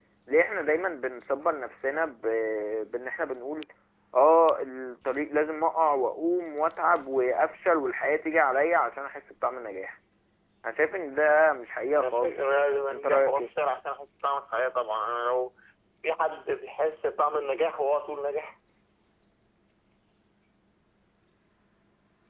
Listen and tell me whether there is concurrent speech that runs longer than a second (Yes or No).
Yes